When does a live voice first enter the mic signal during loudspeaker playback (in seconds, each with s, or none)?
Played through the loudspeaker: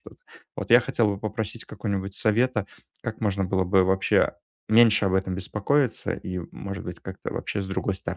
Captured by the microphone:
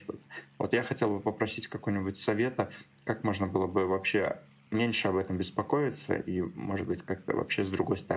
none